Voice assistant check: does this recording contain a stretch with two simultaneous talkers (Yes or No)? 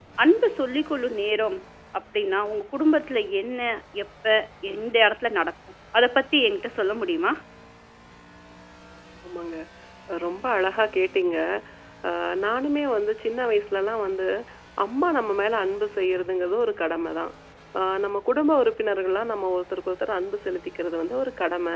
No